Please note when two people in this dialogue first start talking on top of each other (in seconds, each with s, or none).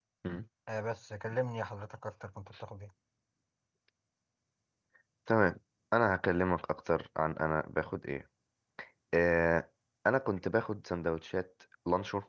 none